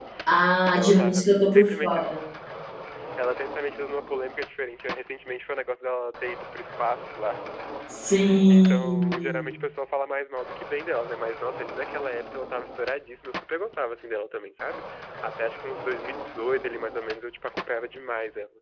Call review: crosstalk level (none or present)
present